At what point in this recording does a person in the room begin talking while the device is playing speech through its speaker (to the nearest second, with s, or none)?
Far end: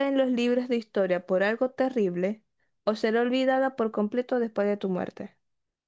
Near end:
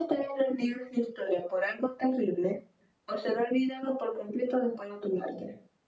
none